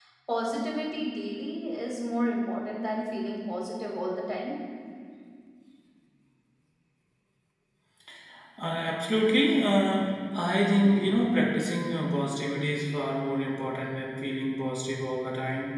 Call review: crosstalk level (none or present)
none